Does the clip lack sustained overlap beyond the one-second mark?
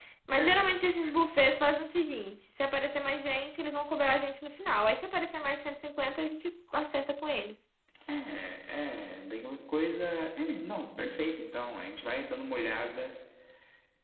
Yes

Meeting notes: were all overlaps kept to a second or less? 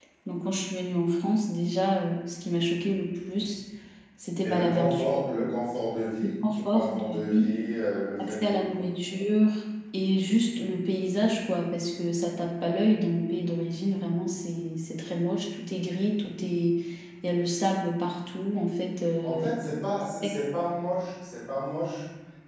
No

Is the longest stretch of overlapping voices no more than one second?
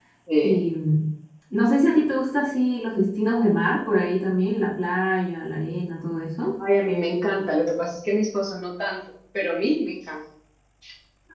Yes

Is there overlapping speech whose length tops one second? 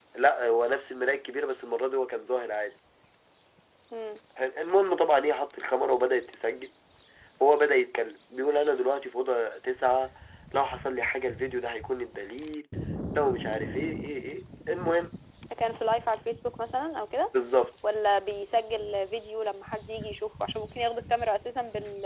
No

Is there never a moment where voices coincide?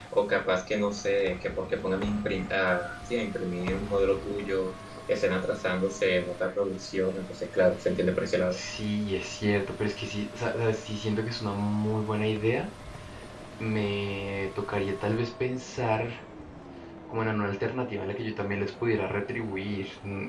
Yes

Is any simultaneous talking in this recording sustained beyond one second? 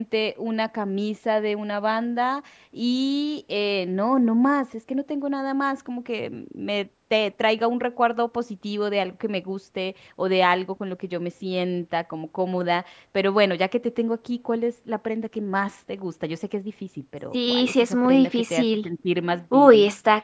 Yes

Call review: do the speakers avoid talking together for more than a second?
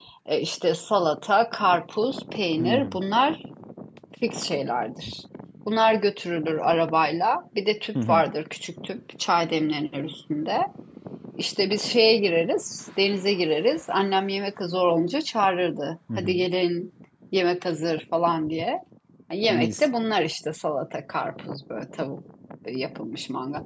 Yes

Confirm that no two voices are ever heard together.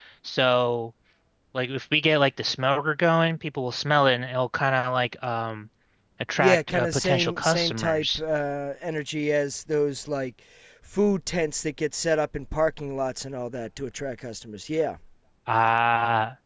No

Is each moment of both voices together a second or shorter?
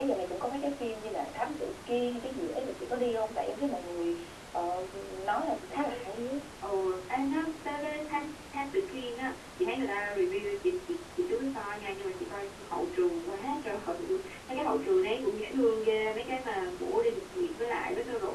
Yes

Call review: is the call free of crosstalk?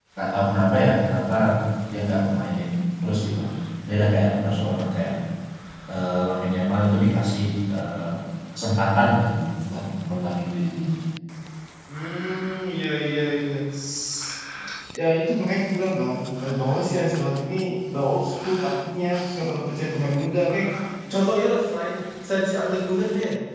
Yes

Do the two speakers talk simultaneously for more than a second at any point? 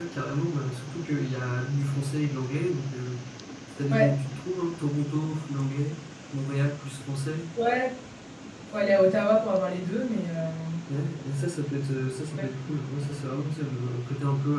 No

